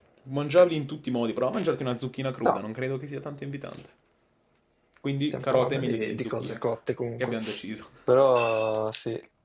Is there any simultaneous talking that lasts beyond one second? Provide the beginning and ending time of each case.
5.3-6.6

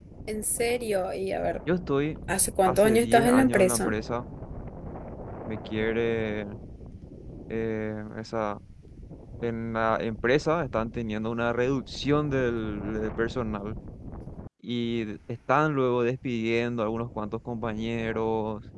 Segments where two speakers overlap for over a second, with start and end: 2.6-3.9

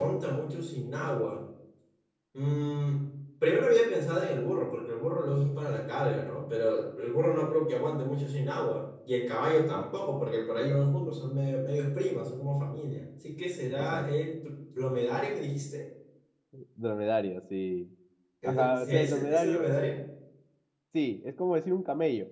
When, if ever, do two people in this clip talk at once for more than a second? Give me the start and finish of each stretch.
18.4-19.8

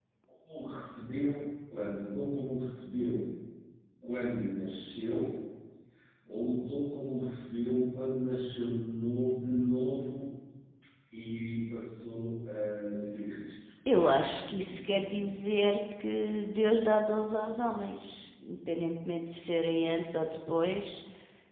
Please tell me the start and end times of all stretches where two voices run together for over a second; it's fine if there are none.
14.0-15.3

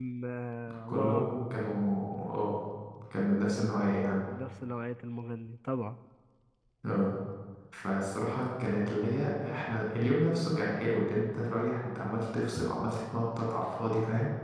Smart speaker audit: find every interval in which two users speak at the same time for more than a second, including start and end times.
none

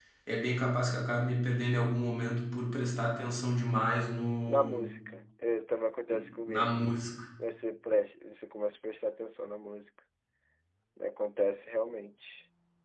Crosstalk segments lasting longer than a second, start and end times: none

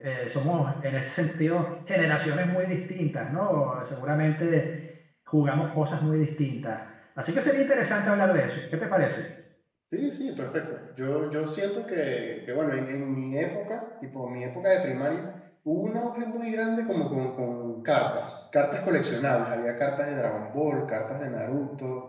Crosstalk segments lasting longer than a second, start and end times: none

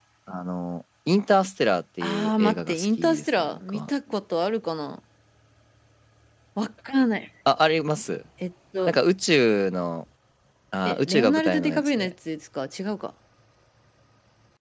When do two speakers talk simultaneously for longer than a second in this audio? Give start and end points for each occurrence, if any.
2.0-3.9, 10.8-12.1

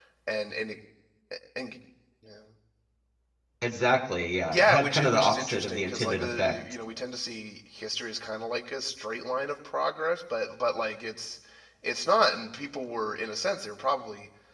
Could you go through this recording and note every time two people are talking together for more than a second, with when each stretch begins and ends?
4.5-6.6

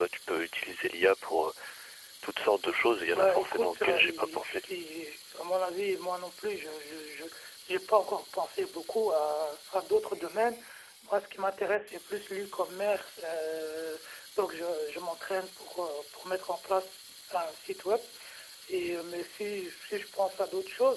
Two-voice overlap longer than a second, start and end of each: 3.1-4.6

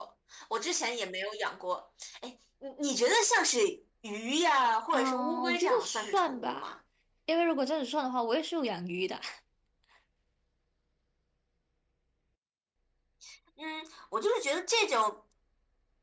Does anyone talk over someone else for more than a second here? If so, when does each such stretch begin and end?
4.9-6.7

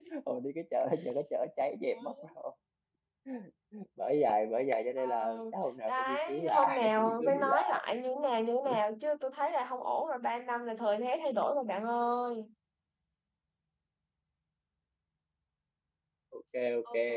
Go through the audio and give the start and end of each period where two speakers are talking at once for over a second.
5.9-7.8

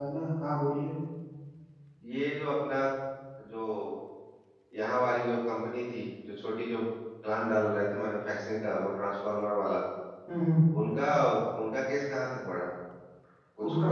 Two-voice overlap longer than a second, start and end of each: none

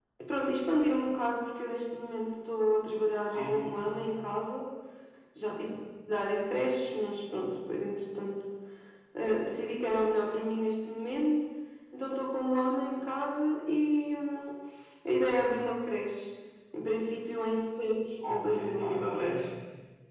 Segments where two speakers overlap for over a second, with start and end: 18.2-19.4

